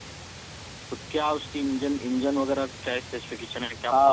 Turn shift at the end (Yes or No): Yes